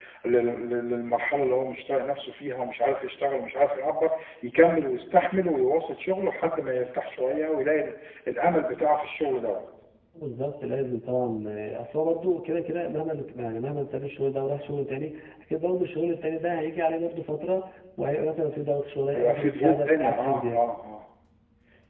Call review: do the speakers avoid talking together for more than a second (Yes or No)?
No